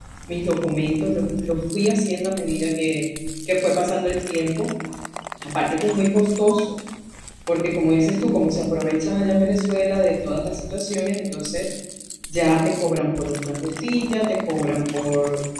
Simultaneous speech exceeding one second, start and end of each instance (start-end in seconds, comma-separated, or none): none